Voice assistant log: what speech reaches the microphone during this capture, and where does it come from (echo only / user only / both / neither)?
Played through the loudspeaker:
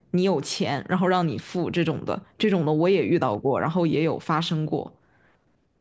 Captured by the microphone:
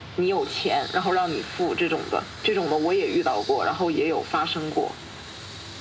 echo only